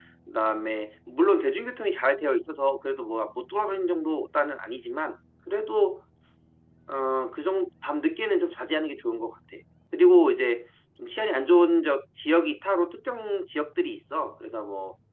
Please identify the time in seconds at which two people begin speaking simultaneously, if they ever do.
none

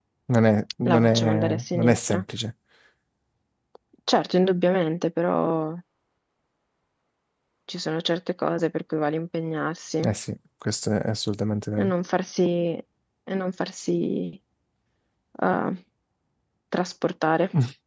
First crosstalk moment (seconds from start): 1 s

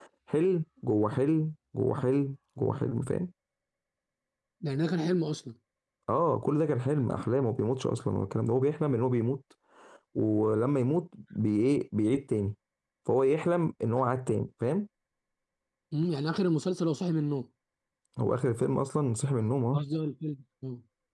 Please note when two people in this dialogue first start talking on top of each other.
none

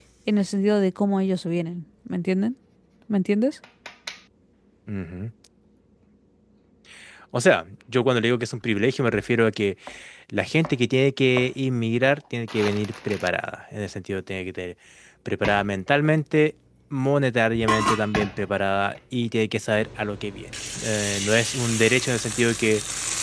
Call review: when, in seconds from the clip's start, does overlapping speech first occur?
none

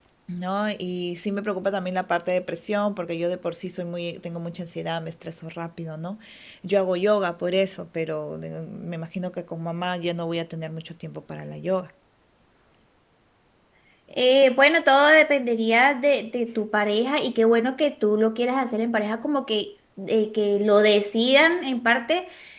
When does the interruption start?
none

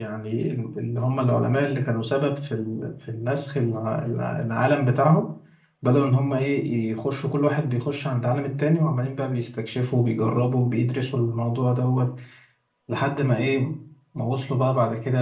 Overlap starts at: none

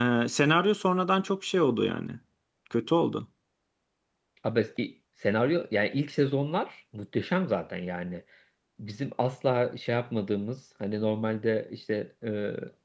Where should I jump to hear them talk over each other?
none

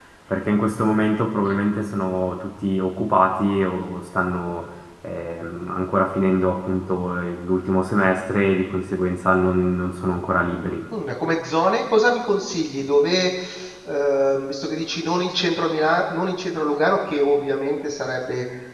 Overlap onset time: none

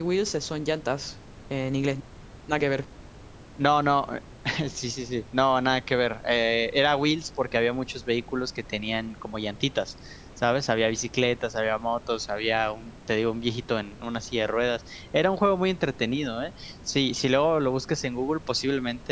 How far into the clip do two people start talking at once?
none

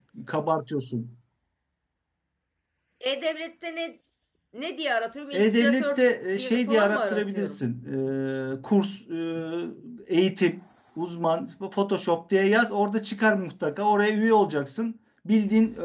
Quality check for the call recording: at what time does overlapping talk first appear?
5 s

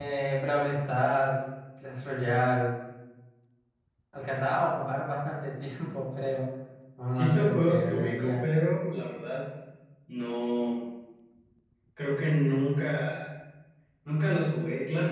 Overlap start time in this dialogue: 7 s

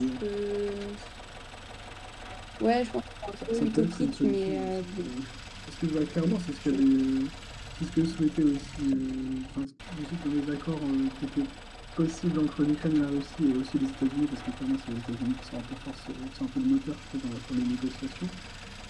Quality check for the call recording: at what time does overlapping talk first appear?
3 s

